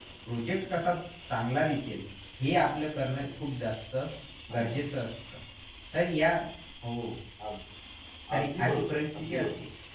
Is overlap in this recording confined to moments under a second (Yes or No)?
No